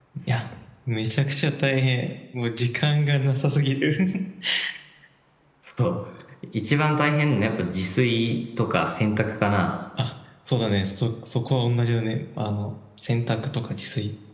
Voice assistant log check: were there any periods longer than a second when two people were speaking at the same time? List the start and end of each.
none

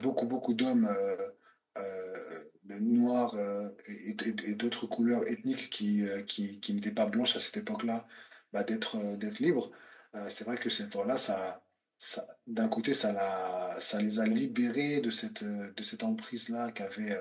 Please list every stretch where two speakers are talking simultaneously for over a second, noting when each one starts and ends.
none

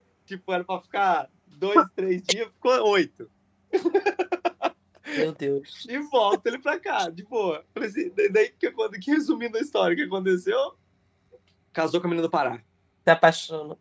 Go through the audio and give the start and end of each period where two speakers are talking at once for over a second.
none

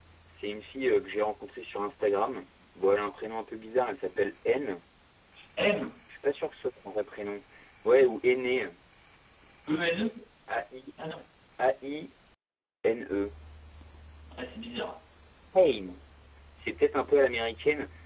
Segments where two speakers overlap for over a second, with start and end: none

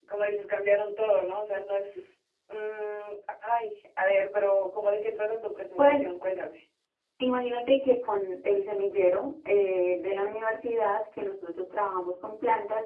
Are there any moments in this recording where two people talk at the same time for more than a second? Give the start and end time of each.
none

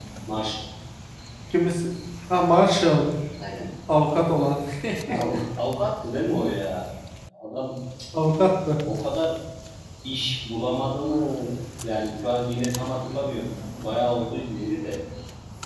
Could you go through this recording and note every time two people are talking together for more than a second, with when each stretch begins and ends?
none

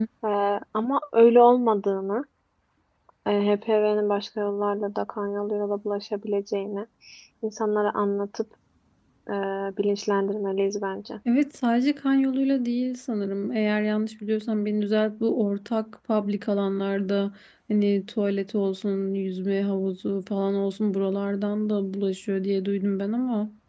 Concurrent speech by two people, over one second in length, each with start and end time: none

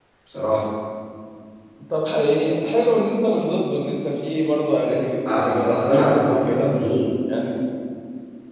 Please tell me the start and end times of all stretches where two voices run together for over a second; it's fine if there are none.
5.4-6.7

